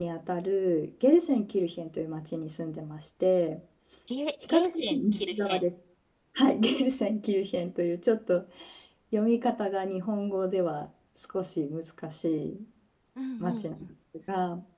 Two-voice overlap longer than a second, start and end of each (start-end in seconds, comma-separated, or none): 4.5-5.7